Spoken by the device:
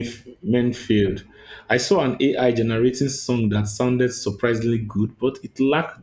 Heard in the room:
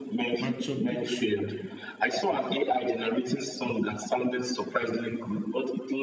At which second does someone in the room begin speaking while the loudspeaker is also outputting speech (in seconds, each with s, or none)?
0.4 s